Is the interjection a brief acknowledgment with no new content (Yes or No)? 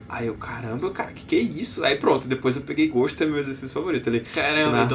No